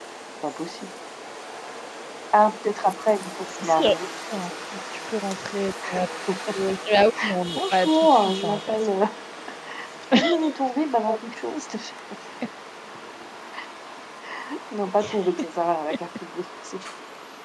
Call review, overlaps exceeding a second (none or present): present